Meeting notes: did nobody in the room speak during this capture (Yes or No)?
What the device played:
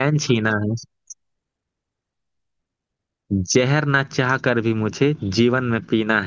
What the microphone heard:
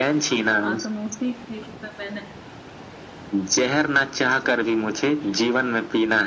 No